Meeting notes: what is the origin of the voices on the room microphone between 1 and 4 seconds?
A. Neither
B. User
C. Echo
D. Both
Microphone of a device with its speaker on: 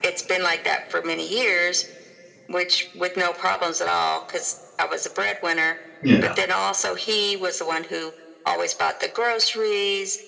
C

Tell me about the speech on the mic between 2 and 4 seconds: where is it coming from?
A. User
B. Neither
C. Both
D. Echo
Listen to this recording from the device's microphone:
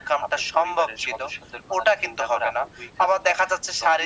D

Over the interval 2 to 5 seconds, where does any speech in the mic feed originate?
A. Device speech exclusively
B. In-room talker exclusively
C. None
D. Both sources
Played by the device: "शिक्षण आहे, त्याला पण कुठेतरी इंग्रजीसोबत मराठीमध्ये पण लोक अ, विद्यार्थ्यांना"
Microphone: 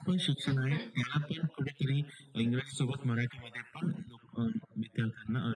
A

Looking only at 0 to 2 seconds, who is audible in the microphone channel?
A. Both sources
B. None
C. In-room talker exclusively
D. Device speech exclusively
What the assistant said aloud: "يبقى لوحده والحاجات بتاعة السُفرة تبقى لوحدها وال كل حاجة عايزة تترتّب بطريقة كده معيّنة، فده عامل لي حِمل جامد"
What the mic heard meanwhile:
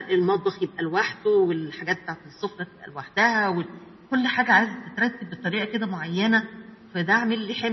D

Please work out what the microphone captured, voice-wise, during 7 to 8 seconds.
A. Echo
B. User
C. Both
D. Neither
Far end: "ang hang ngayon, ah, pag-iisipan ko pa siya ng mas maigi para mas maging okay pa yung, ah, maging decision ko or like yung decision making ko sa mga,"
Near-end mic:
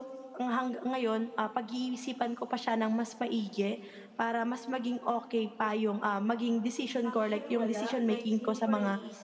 C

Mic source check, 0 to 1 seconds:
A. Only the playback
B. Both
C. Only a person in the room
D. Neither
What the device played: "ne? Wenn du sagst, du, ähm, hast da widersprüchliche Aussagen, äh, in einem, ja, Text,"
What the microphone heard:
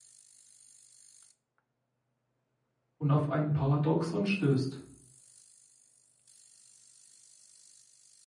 D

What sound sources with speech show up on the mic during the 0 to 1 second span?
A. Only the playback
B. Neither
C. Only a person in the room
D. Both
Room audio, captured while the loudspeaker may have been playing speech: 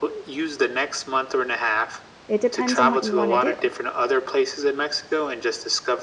A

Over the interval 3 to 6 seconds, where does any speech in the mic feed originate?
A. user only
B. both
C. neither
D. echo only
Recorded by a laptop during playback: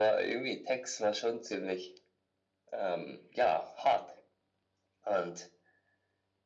D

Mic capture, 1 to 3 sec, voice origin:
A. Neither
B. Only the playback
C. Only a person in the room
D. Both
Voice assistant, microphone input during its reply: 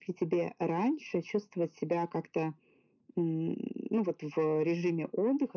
B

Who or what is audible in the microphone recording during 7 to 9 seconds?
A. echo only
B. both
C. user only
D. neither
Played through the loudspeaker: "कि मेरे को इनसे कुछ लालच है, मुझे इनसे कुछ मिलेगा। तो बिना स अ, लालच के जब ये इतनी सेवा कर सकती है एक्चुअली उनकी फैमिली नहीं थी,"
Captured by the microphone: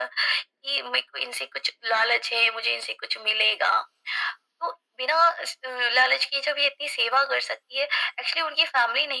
A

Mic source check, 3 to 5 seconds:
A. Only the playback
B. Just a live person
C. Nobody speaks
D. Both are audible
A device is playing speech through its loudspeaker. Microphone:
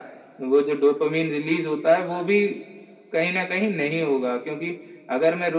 A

